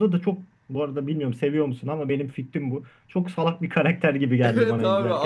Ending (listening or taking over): taking over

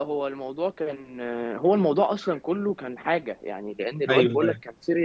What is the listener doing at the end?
listening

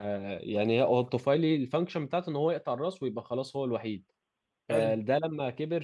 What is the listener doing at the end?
listening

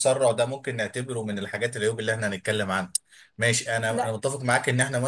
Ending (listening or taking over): listening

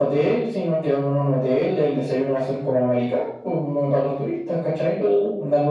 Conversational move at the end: listening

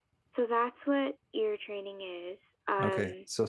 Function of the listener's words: taking over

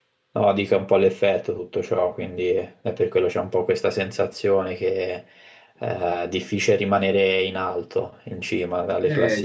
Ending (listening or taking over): taking over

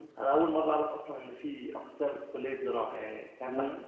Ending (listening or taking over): listening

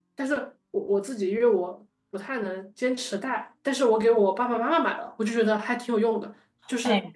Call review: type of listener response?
listening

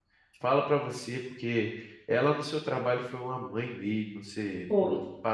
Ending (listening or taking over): listening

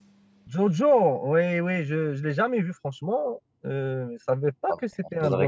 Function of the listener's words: taking over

